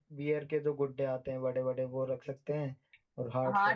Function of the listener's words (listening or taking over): taking over